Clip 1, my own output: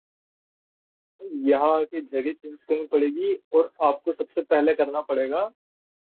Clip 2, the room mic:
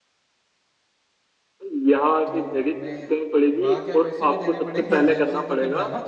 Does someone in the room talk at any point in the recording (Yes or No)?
Yes